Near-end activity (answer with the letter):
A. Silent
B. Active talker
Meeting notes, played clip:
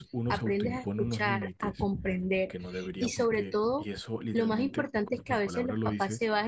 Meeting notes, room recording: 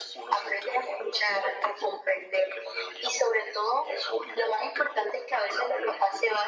A